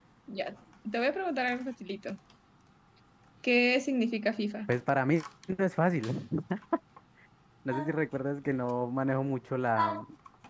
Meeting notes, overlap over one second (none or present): none